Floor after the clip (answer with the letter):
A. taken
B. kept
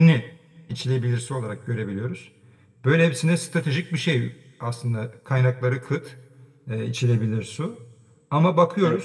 B